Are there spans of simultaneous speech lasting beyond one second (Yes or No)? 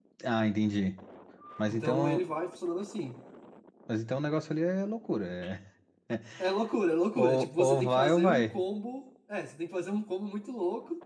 Yes